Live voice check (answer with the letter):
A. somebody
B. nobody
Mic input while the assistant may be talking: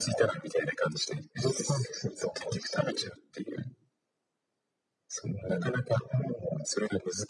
B